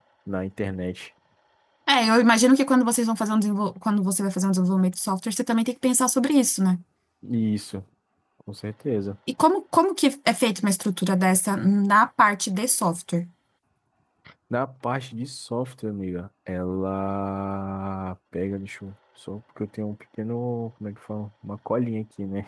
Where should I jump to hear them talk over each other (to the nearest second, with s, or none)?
none